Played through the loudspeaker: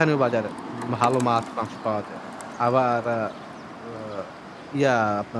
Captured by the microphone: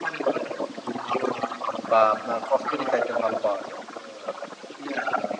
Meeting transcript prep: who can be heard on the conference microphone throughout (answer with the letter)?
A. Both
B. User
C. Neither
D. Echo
A